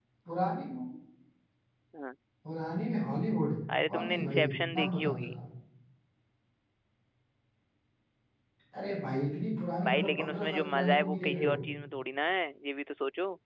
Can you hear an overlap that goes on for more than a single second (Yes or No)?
Yes